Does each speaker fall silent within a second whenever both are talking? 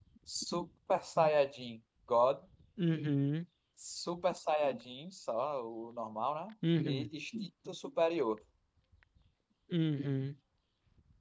Yes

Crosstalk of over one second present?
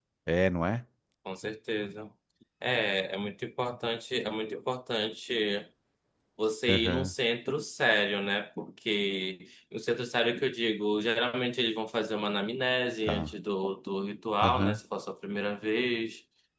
No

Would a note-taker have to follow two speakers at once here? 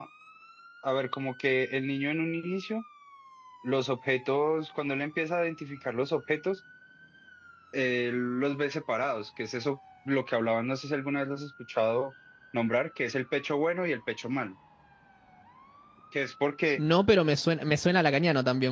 No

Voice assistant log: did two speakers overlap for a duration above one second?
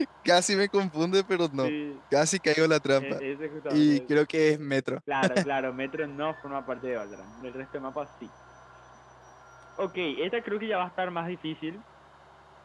No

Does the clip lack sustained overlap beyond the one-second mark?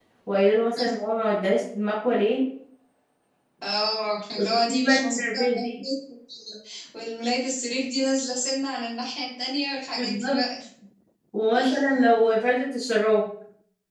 No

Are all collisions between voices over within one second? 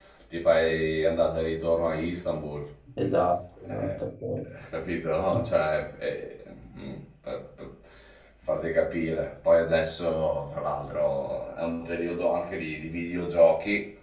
Yes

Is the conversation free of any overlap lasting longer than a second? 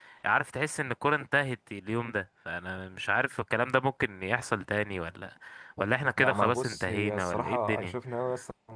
No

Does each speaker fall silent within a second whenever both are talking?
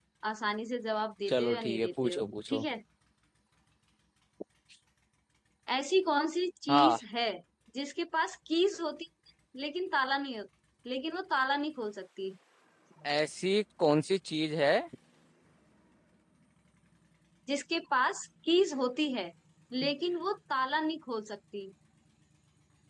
No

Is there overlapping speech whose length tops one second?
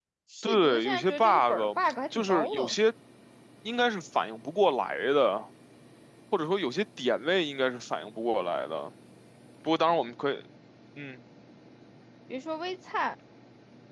Yes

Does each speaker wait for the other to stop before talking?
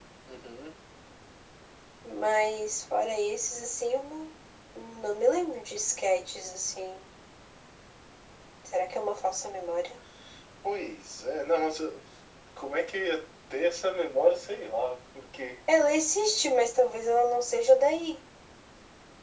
Yes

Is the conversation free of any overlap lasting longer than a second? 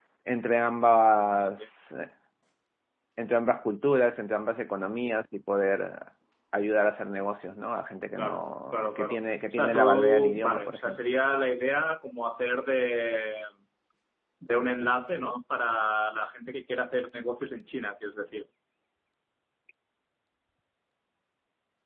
No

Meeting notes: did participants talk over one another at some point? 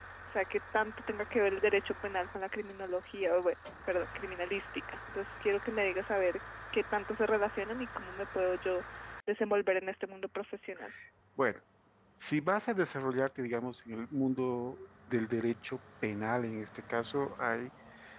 No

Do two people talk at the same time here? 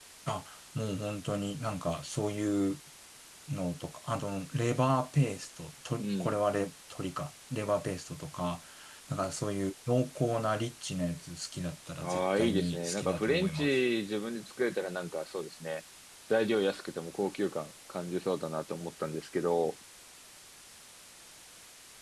Yes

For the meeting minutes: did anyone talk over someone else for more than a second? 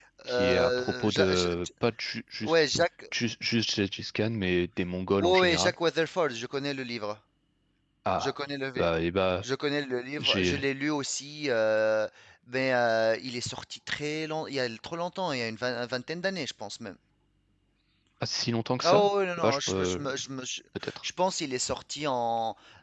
Yes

